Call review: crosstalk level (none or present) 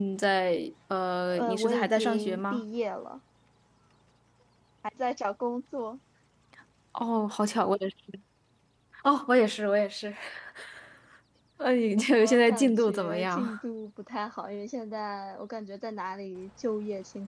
present